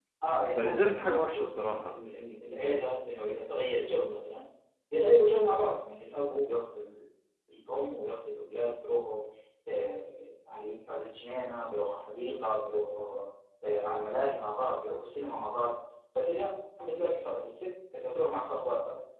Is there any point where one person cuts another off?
Yes, from 0.6 s

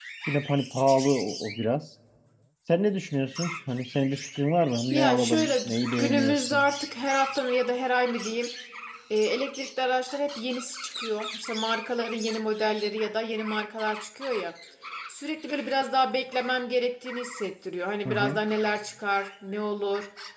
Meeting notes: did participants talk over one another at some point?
Yes, from 4.9 s

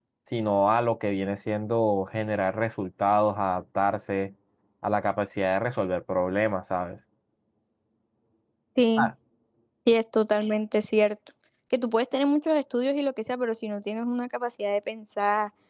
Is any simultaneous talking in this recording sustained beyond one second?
No

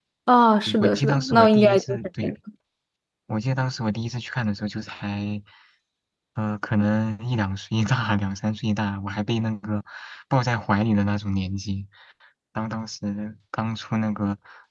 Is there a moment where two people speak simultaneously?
Yes, from 0.7 s

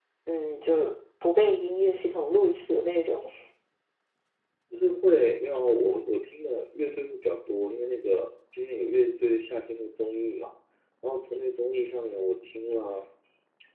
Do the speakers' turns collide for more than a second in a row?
No

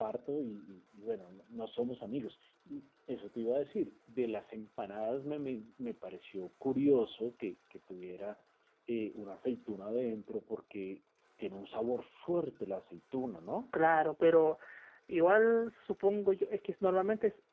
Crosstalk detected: No

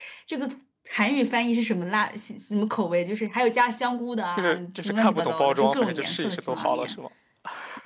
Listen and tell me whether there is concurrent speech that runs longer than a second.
Yes, from 4.4 s

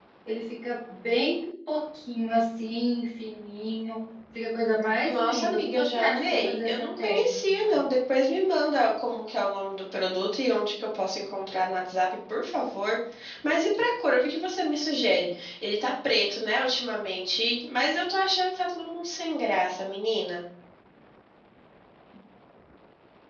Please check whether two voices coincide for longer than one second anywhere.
Yes, from 5.0 s

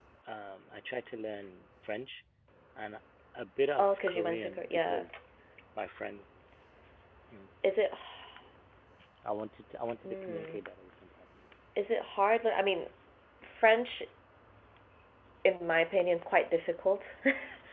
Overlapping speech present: Yes, from 3.8 s

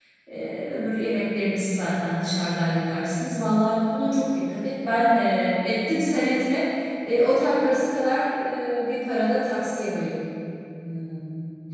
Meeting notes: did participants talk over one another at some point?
No

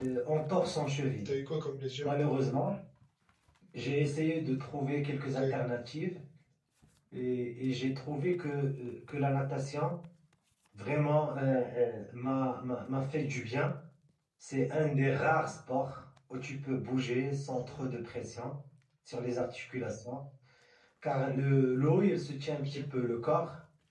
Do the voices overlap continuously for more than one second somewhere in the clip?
No

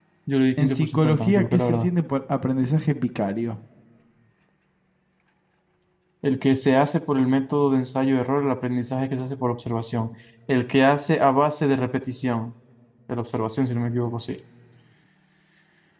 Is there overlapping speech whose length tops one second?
Yes, from 0.6 s

